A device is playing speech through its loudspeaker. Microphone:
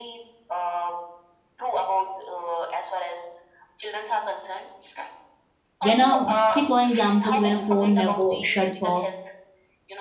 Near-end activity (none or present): present